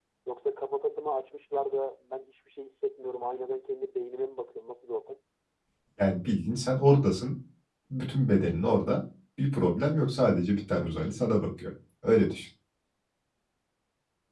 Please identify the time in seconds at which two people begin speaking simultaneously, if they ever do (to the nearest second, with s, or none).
none